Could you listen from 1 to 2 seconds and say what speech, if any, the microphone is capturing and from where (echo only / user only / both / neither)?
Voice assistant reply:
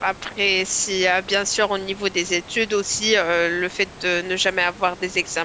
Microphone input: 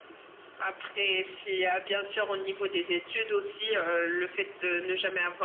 echo only